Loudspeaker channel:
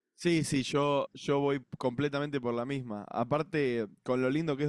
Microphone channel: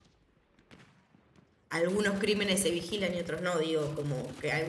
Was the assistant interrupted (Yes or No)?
Yes